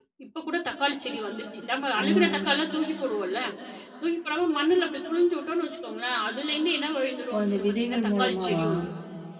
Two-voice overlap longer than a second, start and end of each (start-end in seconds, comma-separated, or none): 7.3-8.7